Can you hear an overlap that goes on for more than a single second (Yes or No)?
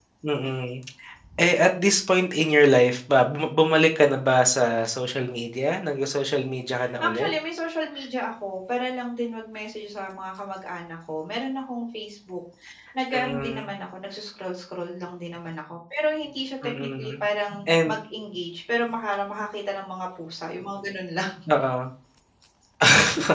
No